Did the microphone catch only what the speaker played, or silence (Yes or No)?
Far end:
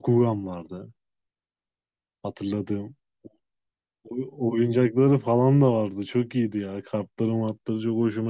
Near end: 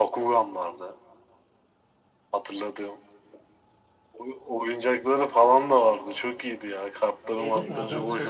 No